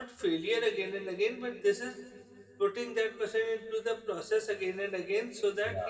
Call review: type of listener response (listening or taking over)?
listening